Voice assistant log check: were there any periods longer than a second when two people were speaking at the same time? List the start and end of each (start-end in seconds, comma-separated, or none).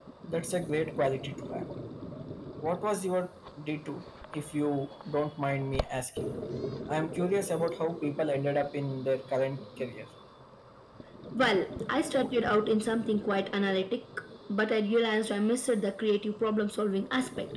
none